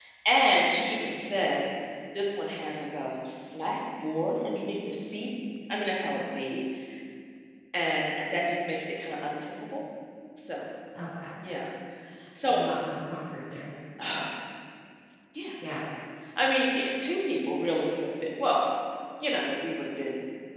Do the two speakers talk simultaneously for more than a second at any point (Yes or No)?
No